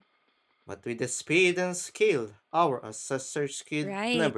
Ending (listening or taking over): taking over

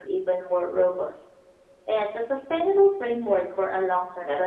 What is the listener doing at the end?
taking over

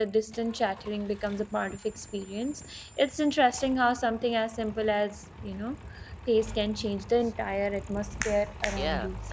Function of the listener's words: taking over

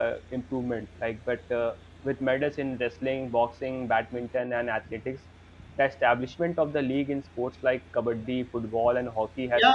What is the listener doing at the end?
taking over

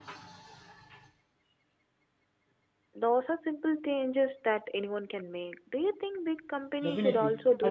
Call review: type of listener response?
taking over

